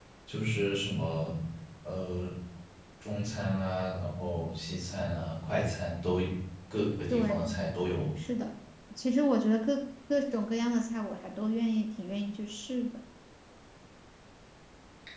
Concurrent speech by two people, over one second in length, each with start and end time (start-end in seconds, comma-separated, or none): none